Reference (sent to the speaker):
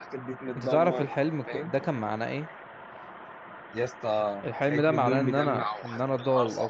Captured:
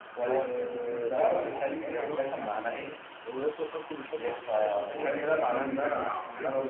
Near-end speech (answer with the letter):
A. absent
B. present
B